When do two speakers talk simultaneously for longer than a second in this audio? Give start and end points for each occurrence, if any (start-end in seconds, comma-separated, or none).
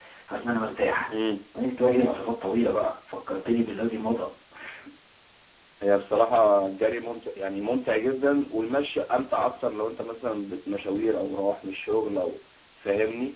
none